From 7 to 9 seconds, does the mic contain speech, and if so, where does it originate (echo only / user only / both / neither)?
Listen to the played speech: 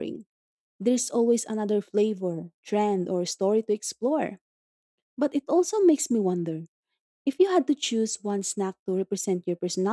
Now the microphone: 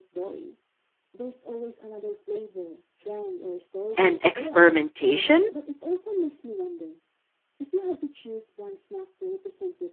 echo only